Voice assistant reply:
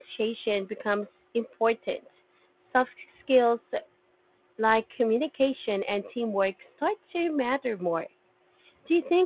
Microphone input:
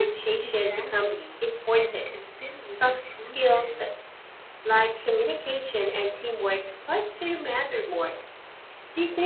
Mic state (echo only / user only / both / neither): both